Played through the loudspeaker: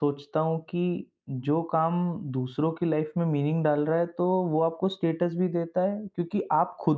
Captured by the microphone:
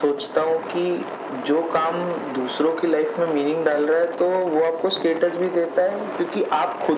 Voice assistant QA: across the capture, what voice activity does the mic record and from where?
echo only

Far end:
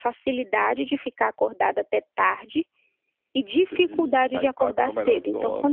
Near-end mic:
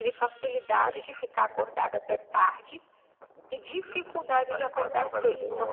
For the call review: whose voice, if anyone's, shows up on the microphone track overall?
both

